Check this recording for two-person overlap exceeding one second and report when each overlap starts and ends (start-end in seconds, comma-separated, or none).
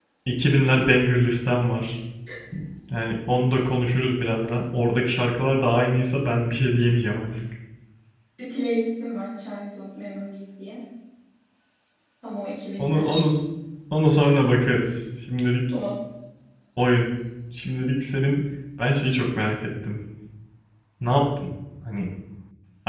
none